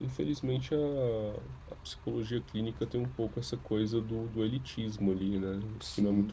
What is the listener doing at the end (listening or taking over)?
taking over